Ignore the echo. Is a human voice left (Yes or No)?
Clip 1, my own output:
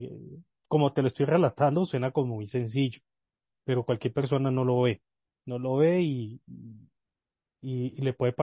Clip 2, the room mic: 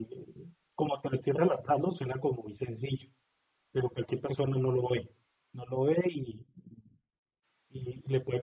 No